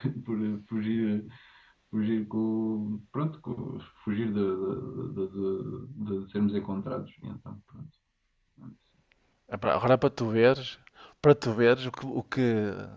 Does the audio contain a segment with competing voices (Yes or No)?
No